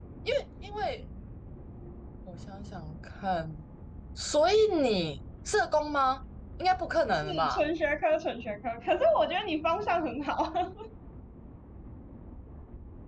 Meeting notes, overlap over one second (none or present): none